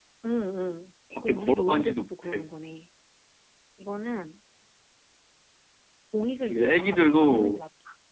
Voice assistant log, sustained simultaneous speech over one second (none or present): present